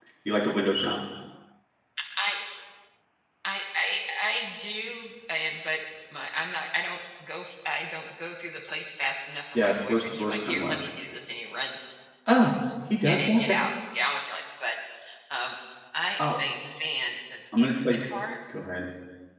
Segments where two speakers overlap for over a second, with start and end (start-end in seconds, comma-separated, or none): 9.6-10.8